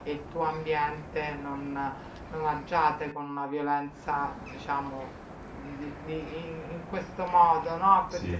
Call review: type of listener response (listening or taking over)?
listening